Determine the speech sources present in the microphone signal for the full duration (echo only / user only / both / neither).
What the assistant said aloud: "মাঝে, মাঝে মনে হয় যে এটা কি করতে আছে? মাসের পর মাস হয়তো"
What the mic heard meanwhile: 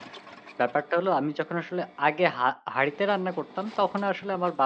user only